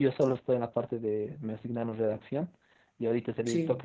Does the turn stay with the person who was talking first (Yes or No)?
Yes